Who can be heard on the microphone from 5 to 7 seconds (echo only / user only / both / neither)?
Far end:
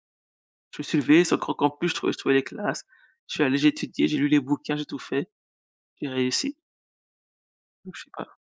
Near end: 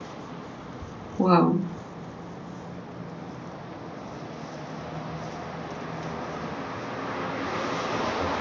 neither